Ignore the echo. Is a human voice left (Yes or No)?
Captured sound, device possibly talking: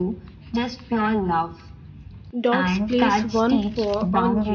Yes